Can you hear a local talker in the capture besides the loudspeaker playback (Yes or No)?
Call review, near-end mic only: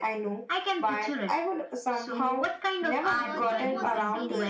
Yes